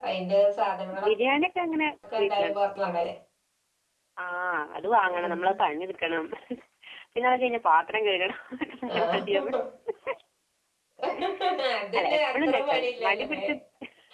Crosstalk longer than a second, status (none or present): present